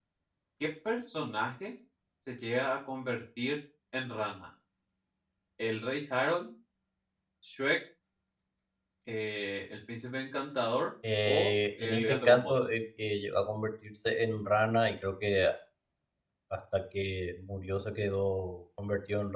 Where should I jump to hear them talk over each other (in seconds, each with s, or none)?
11.0 s